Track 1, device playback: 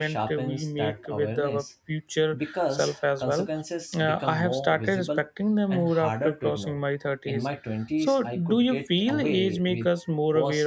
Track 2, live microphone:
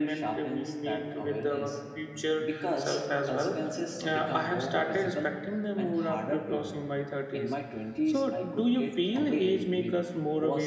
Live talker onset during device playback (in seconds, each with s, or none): none